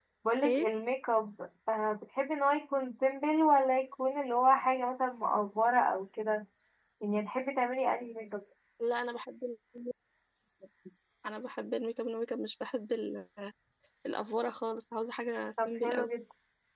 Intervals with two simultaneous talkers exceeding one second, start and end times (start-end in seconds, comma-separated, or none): none